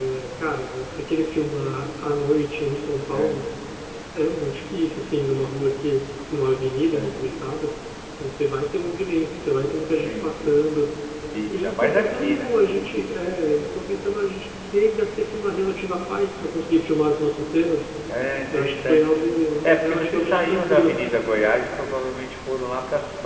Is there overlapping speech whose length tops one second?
Yes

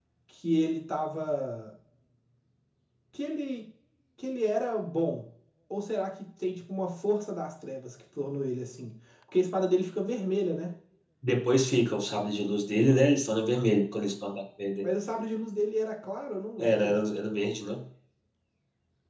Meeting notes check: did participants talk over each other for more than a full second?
No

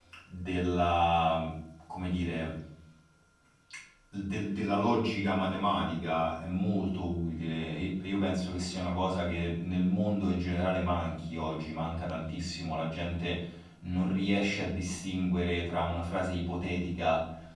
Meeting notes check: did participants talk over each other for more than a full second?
No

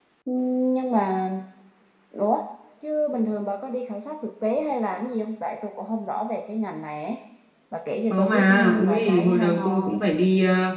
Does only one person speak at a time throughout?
No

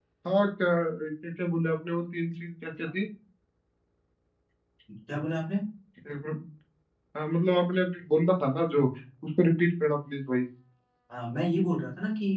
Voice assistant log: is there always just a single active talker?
Yes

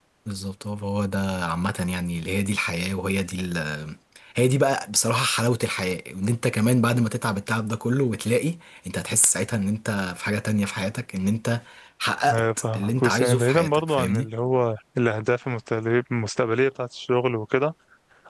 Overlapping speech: Yes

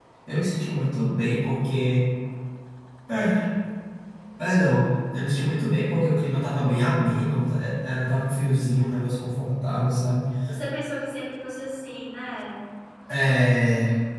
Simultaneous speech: No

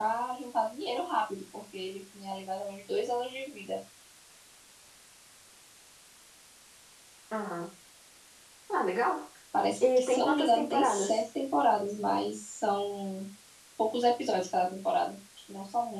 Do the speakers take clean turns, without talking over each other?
No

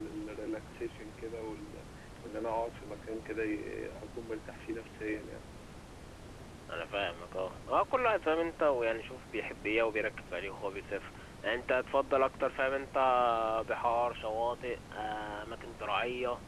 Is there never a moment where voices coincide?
Yes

